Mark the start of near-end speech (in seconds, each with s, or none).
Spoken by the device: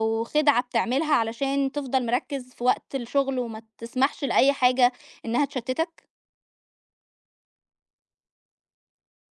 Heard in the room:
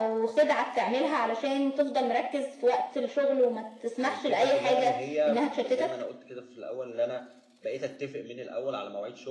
4.0 s